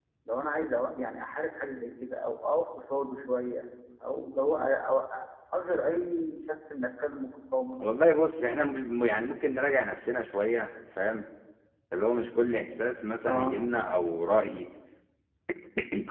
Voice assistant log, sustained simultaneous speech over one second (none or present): none